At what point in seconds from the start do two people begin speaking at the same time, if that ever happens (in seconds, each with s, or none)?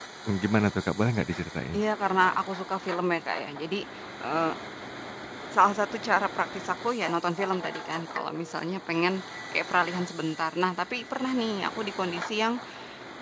none